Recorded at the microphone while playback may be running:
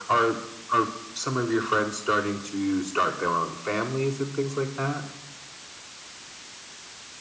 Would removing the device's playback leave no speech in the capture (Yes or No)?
Yes